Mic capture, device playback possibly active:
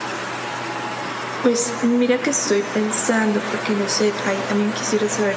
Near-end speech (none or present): present